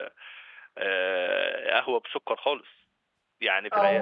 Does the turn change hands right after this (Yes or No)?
No